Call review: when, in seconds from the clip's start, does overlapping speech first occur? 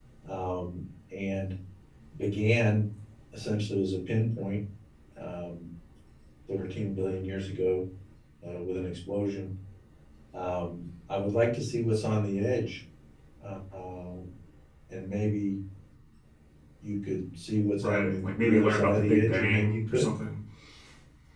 17.8 s

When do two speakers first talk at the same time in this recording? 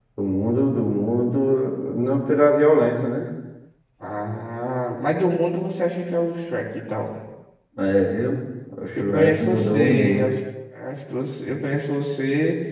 9.0 s

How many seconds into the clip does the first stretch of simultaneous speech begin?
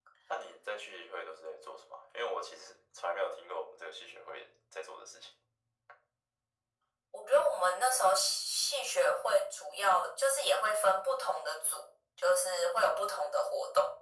none

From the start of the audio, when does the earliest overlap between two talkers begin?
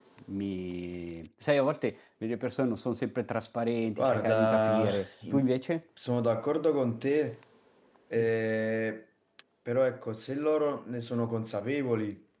4.0 s

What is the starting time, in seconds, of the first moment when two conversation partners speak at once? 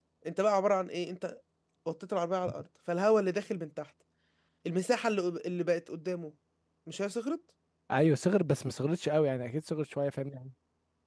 none

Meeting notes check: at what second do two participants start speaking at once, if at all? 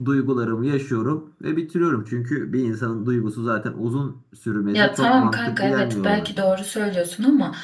4.7 s

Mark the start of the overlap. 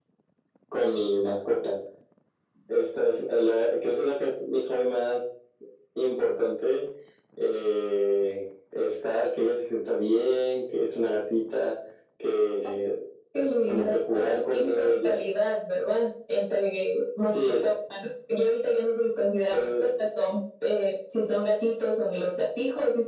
13.7 s

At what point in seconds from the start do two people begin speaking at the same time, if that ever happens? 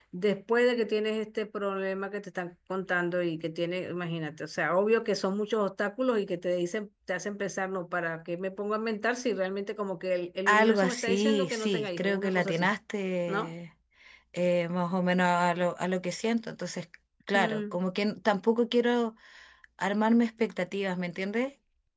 10.5 s

